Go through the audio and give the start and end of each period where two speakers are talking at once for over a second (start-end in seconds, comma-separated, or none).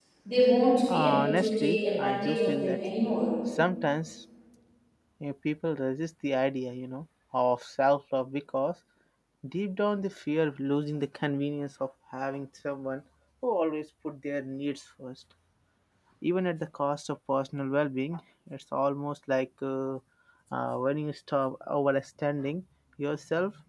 0.9-2.8